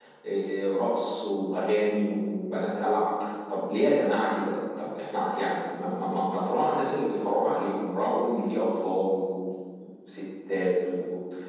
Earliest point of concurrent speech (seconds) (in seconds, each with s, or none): none